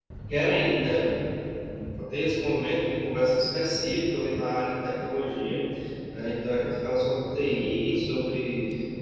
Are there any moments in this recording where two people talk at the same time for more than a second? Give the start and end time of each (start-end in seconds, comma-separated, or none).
none